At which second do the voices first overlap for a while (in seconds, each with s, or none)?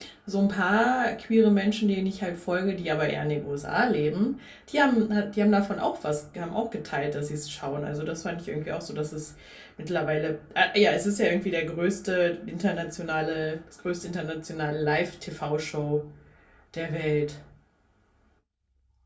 none